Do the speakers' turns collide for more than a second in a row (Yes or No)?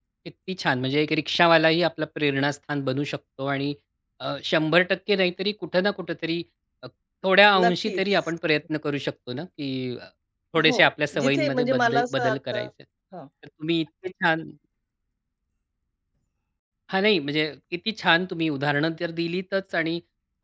Yes